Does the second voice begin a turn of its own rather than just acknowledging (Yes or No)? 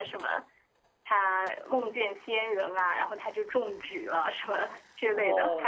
Yes